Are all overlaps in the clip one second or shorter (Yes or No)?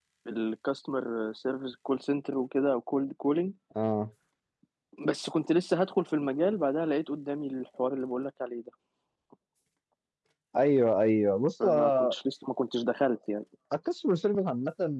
Yes